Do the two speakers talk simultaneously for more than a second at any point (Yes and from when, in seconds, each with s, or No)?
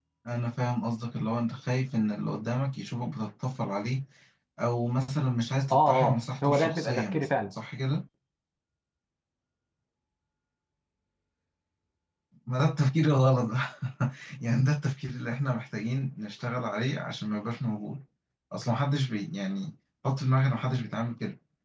Yes, from 5.7 s